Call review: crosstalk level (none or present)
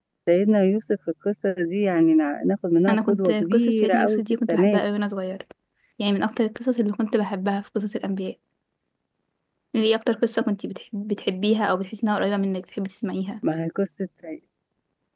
present